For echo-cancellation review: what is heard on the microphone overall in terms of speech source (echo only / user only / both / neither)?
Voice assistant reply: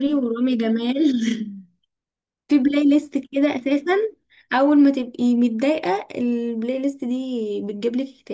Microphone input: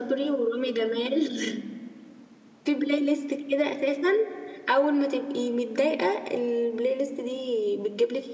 echo only